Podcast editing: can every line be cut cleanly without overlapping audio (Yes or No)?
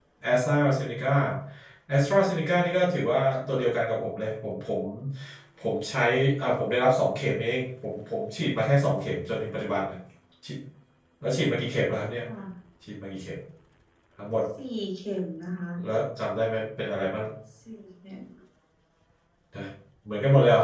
Yes